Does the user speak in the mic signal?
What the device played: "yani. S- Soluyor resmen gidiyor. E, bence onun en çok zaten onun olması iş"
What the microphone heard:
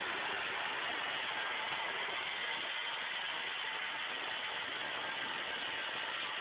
No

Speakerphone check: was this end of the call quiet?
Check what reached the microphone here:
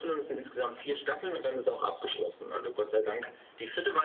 Yes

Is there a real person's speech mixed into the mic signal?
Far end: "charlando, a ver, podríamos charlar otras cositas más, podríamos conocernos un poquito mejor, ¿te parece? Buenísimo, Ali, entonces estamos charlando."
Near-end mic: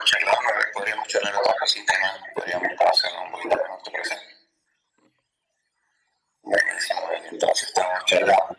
No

